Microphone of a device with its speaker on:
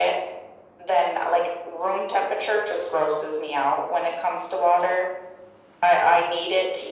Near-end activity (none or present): none